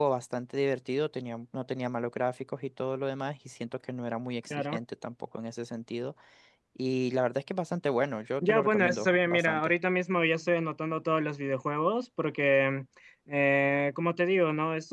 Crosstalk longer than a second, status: present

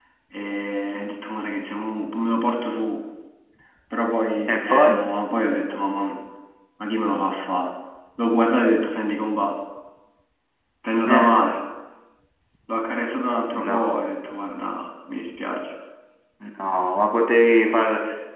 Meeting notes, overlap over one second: none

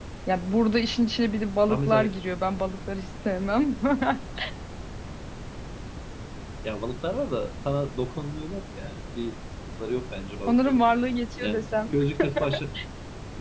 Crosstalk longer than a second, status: none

